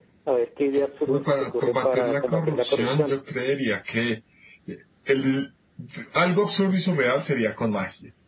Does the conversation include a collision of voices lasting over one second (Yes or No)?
Yes